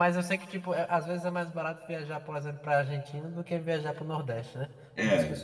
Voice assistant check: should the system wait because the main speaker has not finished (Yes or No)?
No